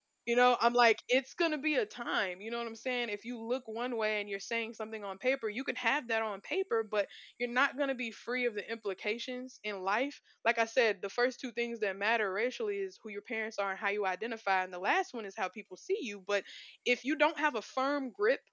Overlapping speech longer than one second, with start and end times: none

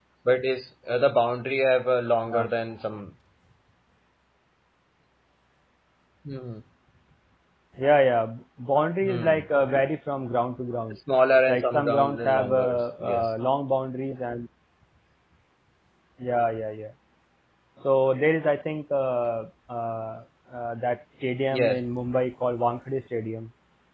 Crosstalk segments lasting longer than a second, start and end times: 11.5-13.3

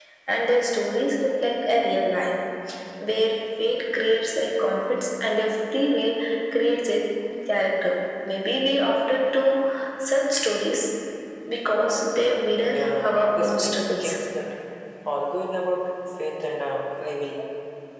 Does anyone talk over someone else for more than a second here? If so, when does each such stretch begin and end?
12.6-14.2

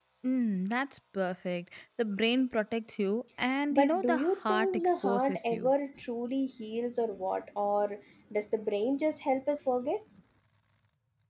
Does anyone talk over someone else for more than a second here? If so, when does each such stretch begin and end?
3.7-5.7

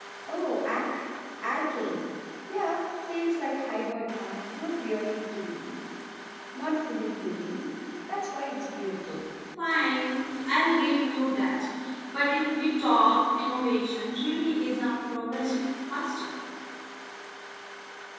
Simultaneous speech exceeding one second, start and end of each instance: none

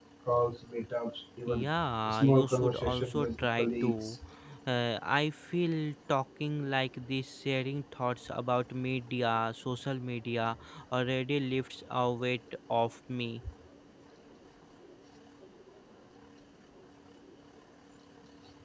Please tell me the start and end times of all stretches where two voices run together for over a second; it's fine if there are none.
2.1-3.9

